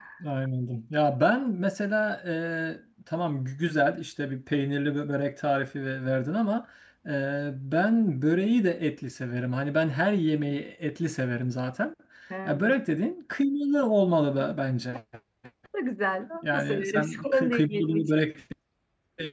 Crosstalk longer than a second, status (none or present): present